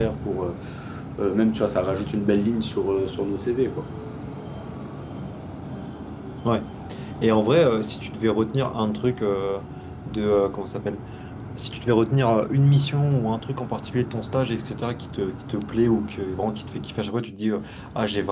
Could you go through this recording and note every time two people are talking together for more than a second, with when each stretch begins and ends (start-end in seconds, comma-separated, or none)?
none